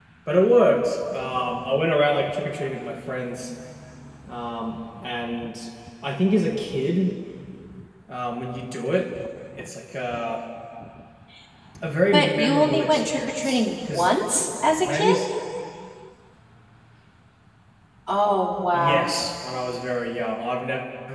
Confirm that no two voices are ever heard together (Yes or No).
No